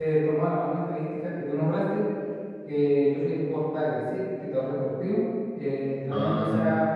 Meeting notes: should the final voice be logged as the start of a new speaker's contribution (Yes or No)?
No